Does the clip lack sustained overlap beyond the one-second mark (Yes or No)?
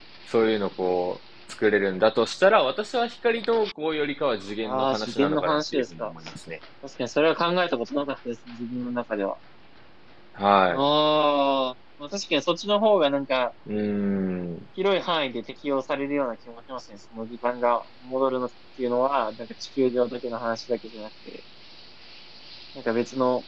No